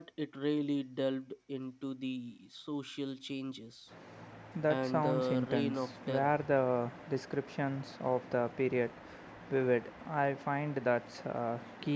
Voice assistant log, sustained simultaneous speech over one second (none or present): present